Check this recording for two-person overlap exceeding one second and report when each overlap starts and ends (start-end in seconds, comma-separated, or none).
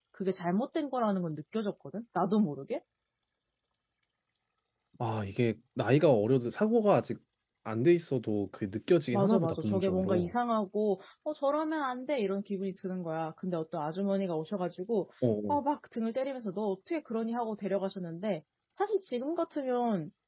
9.1-10.3